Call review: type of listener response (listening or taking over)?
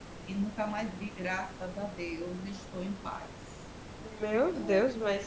taking over